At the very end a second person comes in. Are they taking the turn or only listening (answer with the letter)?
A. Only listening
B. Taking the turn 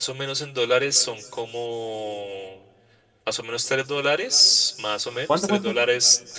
A